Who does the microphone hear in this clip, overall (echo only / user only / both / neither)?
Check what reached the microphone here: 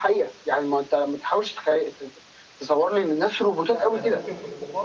both